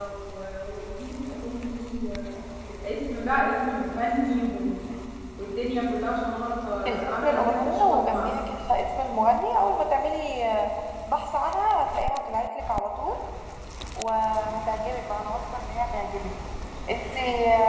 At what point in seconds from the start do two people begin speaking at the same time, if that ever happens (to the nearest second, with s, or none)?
7 s